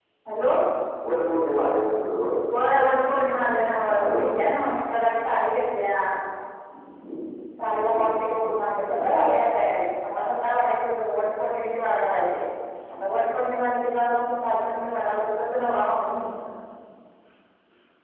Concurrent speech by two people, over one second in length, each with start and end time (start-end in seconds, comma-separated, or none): none